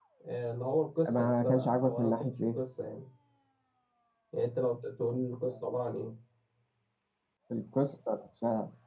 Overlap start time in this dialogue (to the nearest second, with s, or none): 1 s